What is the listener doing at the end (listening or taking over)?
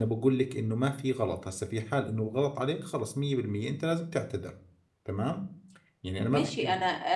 taking over